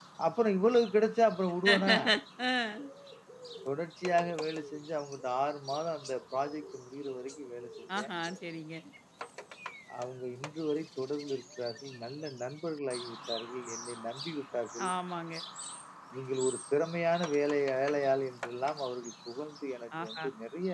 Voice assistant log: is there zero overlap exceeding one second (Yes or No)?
Yes